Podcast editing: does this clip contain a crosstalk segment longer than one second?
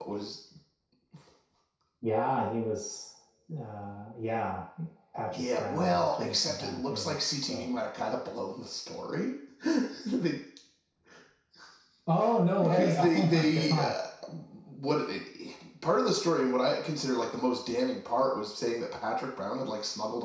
Yes, from 5.3 s

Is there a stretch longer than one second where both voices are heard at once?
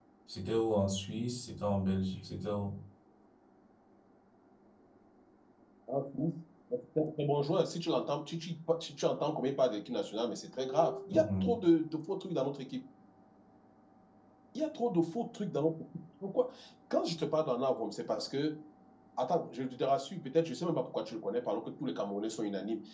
No

